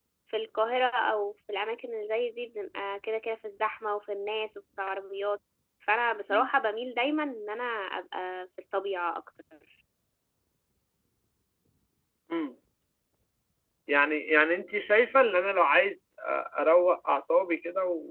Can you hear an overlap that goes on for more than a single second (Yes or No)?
No